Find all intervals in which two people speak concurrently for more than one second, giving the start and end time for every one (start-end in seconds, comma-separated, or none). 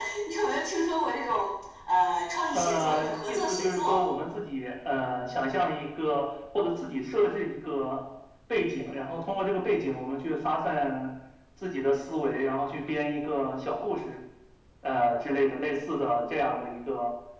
2.5-4.0